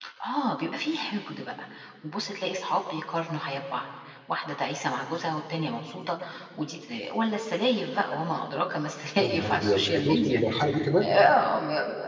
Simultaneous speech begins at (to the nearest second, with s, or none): 9 s